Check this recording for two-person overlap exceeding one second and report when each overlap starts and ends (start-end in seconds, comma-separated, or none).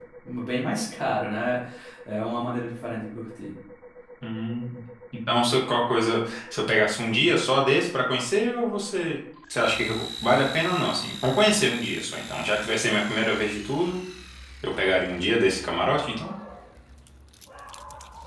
none